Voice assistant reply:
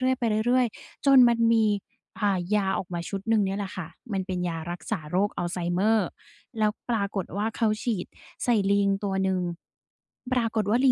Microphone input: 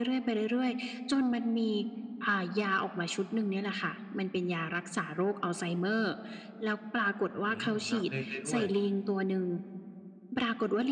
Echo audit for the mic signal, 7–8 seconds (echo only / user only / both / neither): both